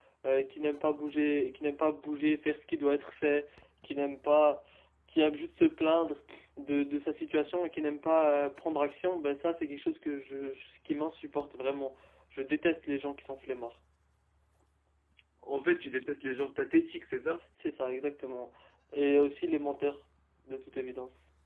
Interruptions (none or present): none